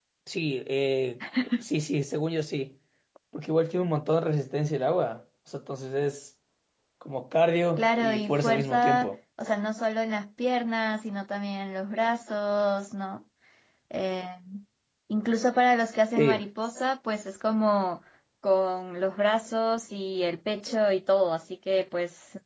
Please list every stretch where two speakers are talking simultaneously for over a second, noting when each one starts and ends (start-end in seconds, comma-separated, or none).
7.8-9.1